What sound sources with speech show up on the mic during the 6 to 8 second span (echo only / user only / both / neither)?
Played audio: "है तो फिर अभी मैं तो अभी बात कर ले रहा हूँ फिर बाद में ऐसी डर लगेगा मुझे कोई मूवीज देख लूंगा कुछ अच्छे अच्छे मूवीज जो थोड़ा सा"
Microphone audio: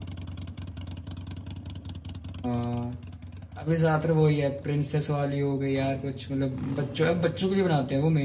user only